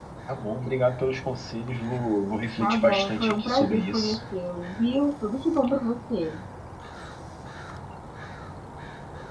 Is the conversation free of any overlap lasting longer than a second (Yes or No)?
No